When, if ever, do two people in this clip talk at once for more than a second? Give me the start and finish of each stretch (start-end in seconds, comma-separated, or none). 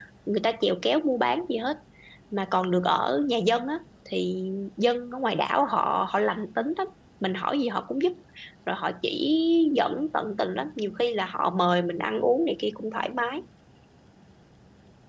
none